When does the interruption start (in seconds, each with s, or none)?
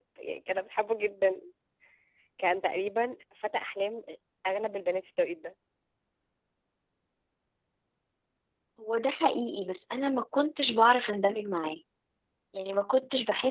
none